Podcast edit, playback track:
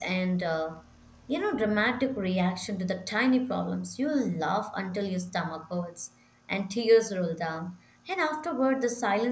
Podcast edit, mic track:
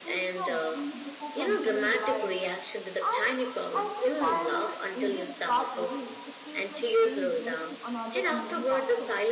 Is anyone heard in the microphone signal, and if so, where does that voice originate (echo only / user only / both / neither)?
both